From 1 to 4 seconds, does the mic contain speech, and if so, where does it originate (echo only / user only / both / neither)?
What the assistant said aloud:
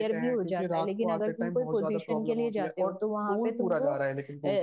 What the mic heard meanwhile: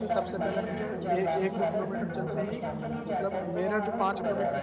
both